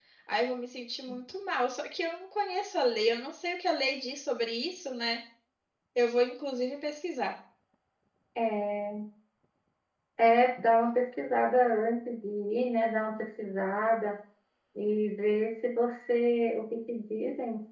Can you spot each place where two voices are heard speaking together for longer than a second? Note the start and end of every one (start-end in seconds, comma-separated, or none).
none